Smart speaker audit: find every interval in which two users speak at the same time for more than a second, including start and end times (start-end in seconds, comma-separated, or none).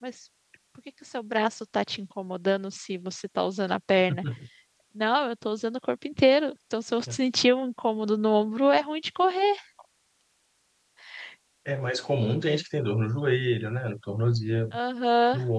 none